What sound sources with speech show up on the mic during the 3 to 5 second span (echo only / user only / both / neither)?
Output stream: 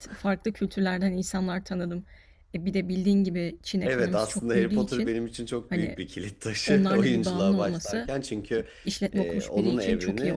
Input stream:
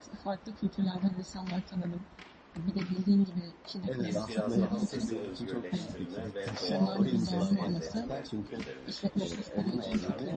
both